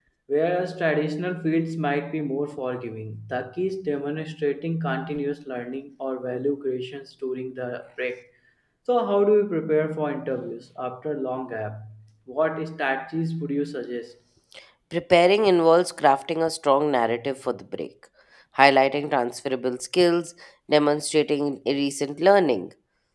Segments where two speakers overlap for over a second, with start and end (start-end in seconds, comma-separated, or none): none